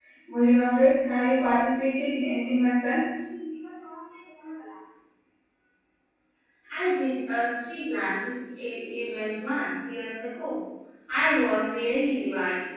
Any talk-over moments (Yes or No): No